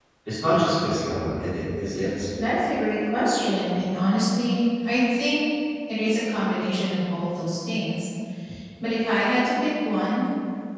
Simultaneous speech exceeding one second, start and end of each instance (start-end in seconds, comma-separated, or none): none